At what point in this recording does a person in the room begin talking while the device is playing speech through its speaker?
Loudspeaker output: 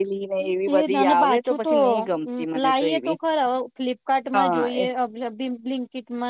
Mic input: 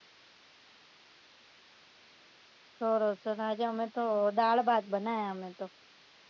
2.8 s

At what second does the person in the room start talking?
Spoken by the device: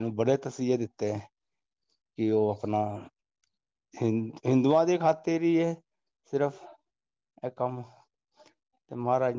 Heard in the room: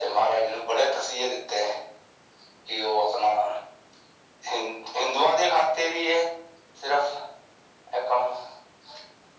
none

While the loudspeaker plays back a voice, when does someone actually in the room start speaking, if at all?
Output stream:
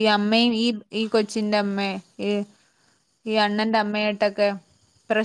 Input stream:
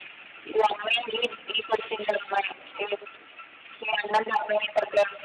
none

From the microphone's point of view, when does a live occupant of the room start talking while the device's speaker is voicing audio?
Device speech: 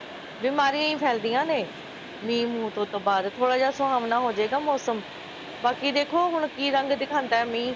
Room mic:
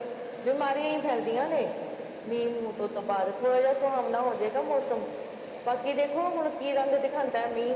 none

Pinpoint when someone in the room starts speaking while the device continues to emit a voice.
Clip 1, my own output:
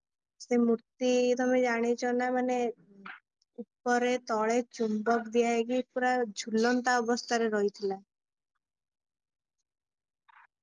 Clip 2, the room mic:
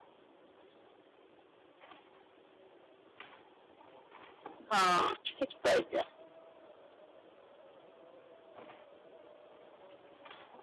4.7 s

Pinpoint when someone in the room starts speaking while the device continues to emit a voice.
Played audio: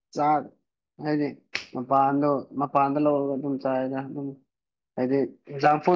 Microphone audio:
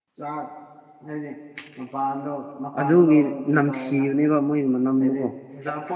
2.8 s

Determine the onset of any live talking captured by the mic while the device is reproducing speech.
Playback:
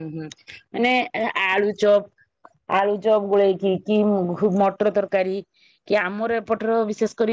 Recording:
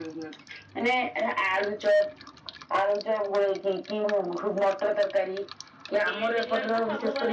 6.1 s

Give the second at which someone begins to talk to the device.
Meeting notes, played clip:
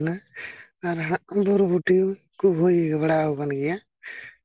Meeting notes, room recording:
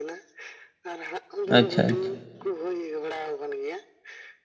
1.6 s

